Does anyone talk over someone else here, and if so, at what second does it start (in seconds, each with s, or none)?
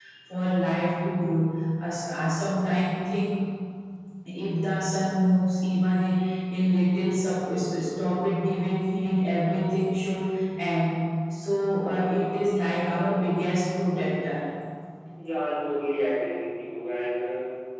none